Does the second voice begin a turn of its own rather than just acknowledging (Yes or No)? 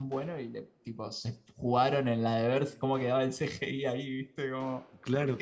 Yes